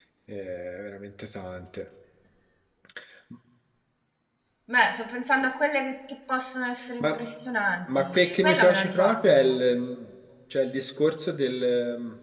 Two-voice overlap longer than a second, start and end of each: 7.9-9.6

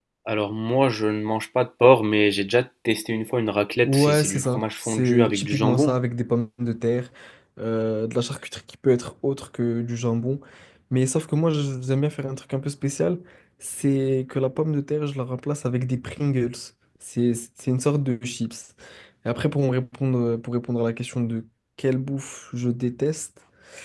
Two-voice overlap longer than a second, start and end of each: 3.8-6.0

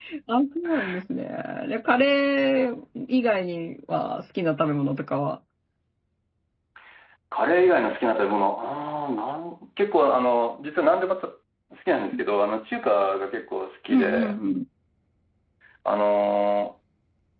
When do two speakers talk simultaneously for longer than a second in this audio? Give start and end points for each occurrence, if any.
none

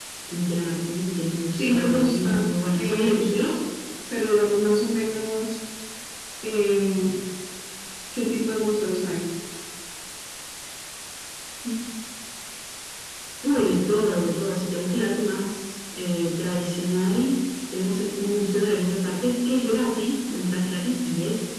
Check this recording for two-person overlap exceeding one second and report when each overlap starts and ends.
1.6-3.2

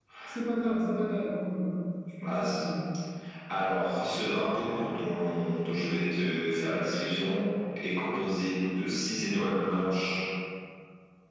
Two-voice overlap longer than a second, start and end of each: none

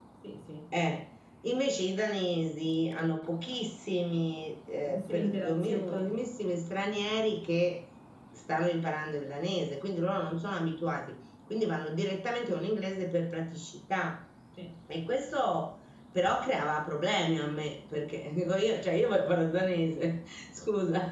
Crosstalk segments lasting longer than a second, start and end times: 4.9-6.2

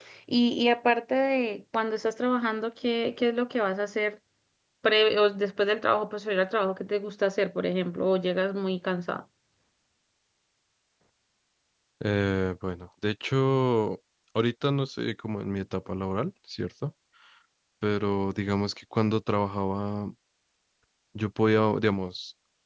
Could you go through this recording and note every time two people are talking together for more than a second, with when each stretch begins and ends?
none

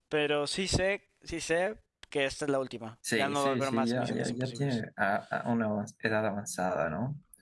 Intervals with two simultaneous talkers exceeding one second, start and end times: 3.1-4.8

